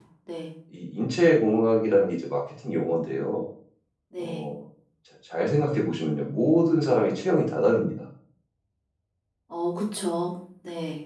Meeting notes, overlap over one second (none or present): none